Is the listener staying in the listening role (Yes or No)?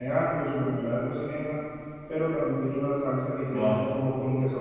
Yes